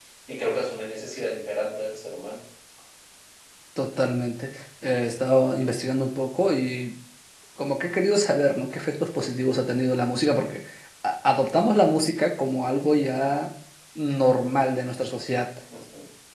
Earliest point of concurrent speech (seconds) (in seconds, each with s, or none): none